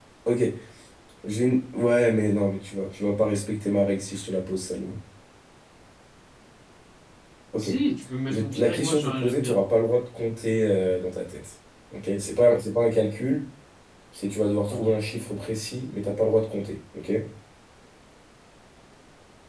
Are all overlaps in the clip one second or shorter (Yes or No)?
No